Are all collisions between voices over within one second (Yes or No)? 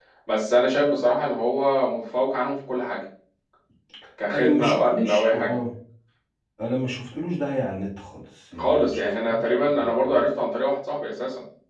No